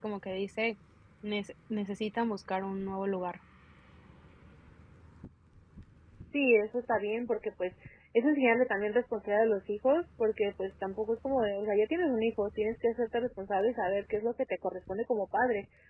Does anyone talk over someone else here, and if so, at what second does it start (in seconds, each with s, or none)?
none